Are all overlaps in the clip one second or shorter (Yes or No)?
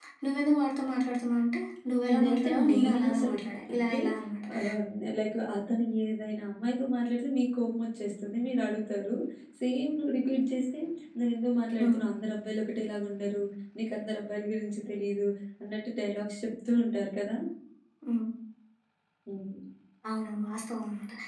No